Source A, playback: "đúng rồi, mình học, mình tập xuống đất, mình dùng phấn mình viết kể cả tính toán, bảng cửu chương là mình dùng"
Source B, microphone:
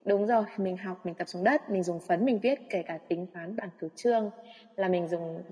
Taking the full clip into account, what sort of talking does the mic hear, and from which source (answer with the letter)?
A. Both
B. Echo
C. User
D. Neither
B